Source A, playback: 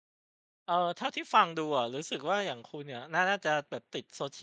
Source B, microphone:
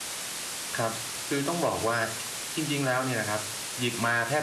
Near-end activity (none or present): present